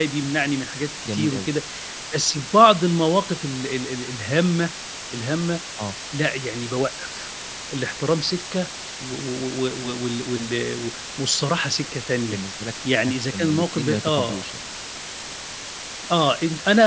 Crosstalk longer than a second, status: present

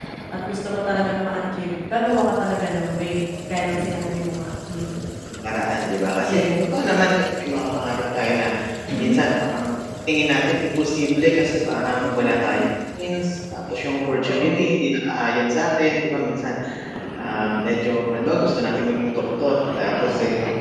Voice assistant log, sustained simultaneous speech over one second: none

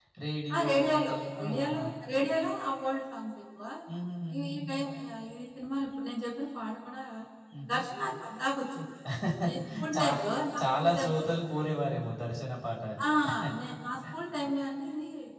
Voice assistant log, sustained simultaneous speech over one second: present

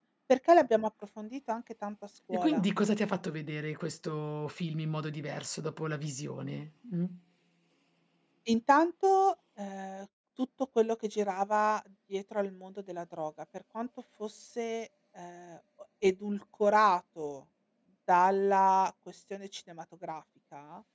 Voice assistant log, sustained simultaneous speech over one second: none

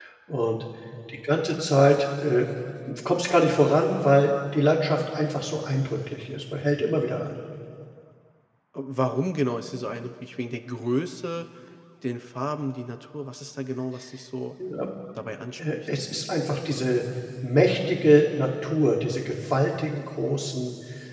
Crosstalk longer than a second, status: none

